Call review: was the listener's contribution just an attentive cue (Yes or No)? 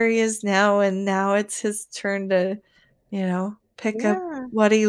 No